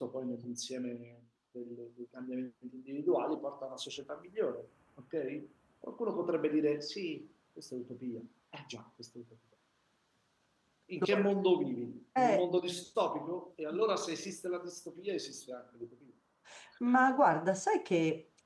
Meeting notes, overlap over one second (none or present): none